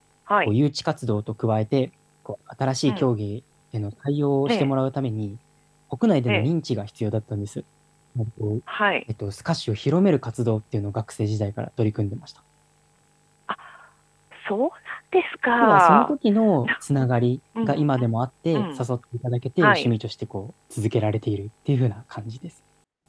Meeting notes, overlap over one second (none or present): none